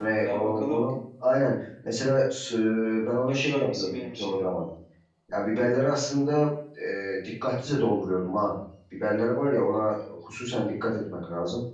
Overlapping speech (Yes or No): Yes